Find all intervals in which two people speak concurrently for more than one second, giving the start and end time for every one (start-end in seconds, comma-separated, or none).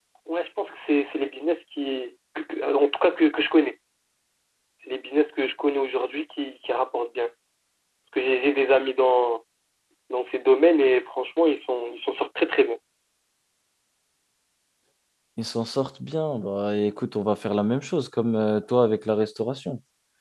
none